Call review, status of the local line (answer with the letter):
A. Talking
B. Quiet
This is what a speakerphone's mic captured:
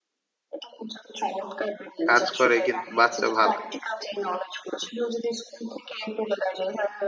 A